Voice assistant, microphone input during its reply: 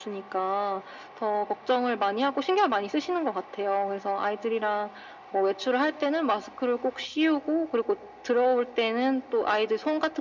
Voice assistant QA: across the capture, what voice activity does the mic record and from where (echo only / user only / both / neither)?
echo only